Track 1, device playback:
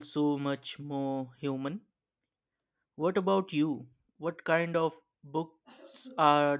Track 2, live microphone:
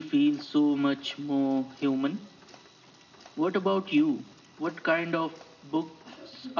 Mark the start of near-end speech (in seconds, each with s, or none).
none